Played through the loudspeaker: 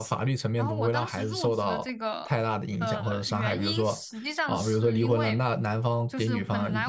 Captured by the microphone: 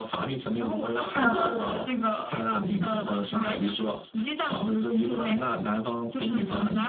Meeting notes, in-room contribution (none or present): present